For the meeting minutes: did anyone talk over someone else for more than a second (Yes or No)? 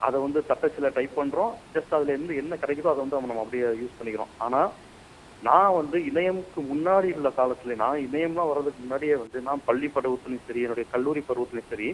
No